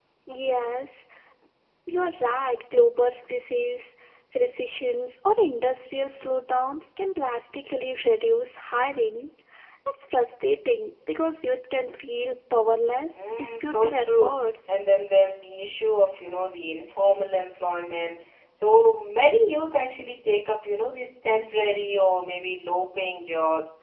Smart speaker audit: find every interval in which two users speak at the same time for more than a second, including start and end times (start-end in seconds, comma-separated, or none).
13.2-14.7